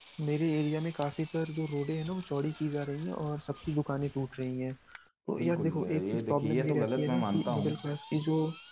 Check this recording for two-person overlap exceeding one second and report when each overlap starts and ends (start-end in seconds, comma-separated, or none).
5.4-7.7